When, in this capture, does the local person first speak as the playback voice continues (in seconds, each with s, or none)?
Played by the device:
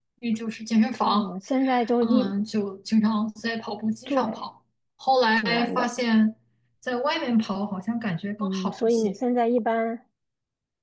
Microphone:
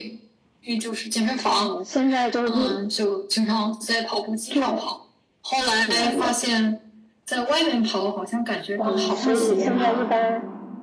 8.7 s